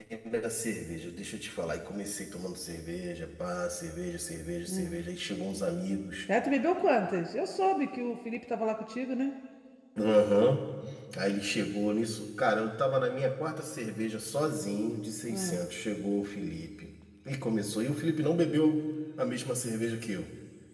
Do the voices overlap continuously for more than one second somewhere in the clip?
No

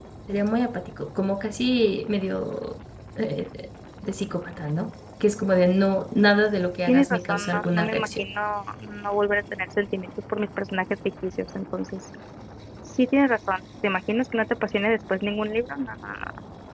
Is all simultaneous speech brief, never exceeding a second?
No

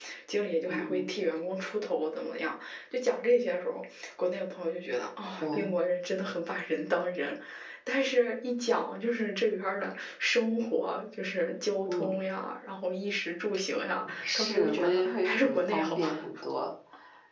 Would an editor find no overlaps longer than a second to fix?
No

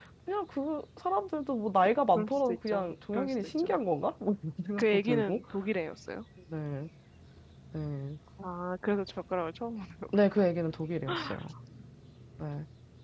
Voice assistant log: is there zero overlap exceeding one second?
No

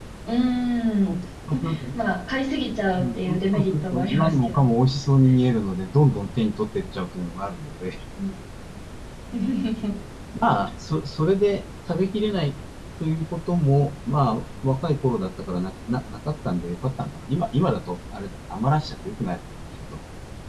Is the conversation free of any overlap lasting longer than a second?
No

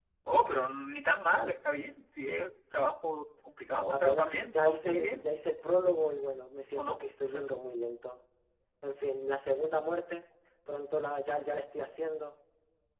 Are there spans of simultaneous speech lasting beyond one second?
Yes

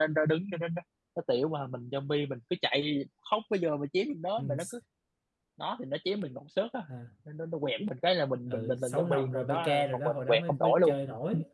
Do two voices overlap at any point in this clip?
Yes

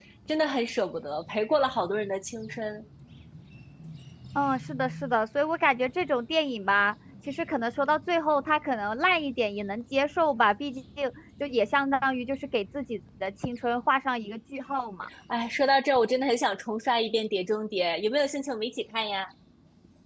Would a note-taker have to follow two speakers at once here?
No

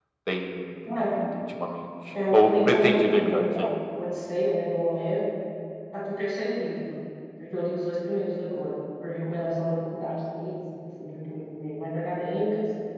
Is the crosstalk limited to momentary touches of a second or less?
No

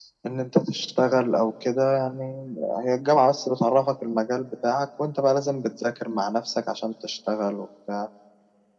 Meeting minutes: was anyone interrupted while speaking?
No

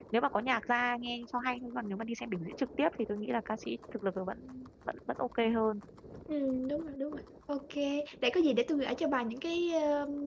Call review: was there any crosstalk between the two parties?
No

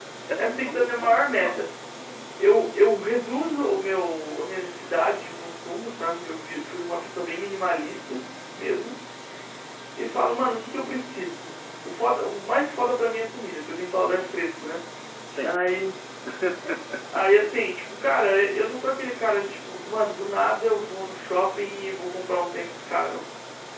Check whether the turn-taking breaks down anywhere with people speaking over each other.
Yes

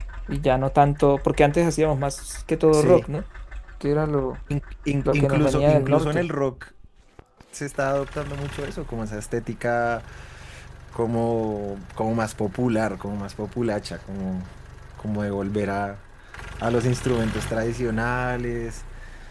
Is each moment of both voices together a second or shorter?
No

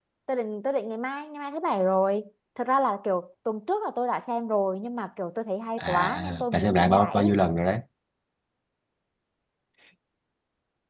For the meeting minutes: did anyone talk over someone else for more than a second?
Yes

